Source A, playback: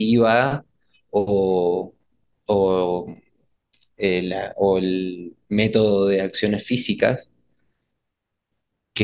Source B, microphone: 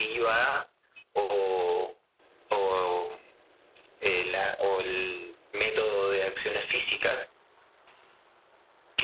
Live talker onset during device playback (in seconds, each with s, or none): none